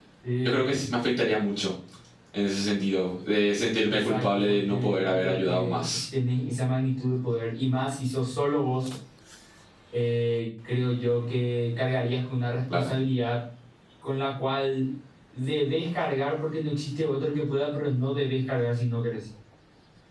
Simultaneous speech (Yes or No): Yes